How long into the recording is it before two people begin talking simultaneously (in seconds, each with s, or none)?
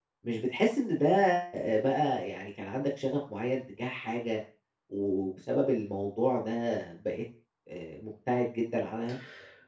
none